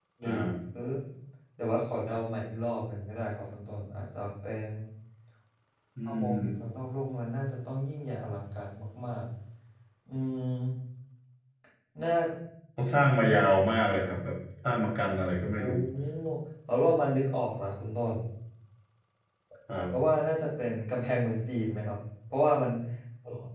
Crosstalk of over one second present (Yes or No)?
No